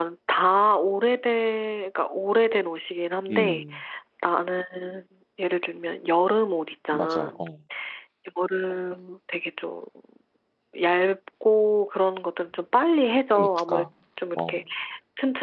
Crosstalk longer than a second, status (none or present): none